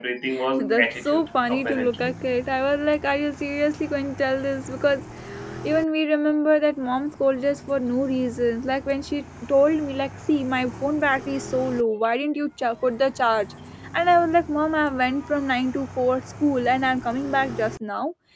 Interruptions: present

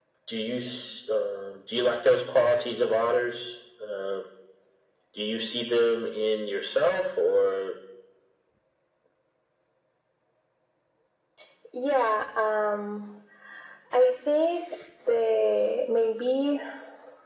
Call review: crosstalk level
none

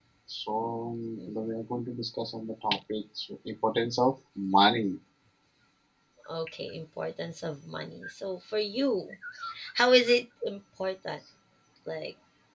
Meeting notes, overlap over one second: none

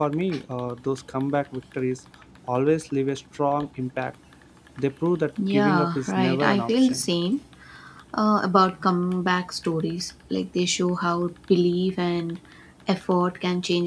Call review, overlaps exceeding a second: present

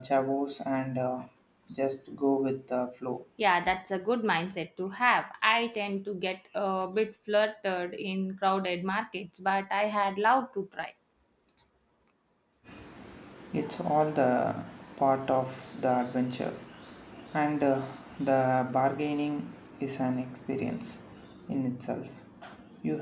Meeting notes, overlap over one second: none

